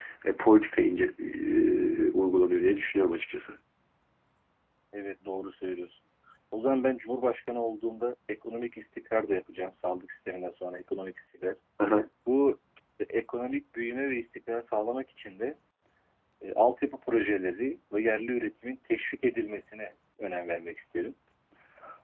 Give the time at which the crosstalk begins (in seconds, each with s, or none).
none